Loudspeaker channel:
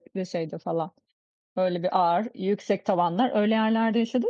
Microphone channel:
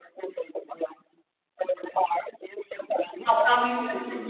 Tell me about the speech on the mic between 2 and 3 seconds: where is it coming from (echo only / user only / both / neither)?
echo only